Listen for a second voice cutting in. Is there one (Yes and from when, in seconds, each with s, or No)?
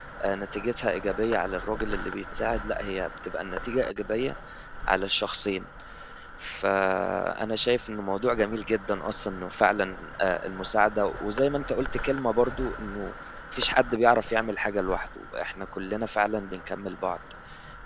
No